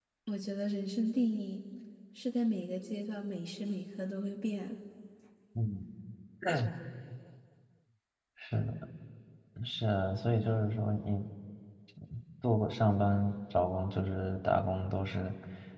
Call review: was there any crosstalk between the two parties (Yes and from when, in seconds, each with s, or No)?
No